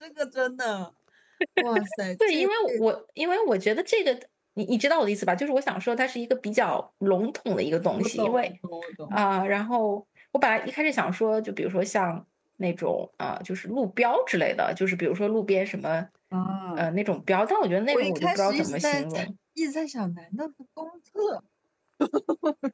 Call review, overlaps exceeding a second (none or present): present